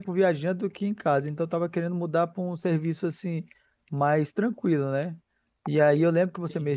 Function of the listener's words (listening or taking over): listening